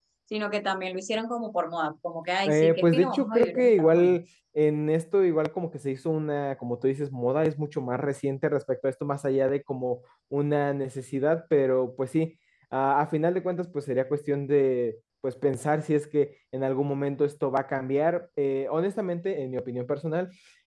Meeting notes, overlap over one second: present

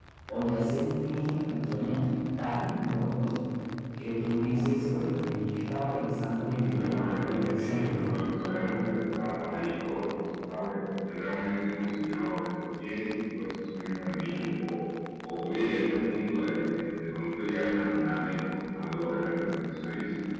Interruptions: present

